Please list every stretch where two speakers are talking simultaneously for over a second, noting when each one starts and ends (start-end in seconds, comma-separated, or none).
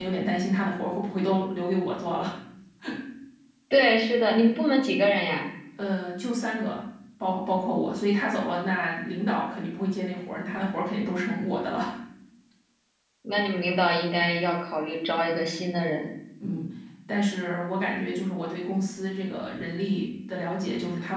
none